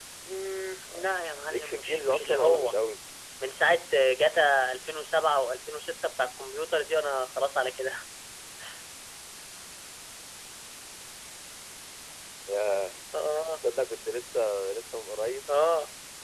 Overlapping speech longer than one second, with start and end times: 1.5-2.7

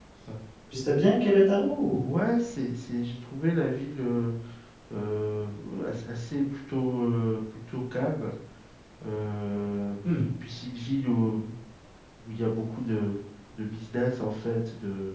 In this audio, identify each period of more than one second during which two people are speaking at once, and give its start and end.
none

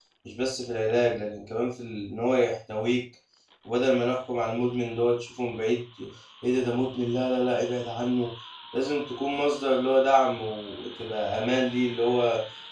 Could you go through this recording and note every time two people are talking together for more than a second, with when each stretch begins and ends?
none

